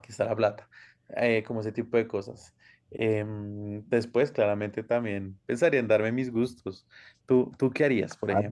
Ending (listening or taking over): taking over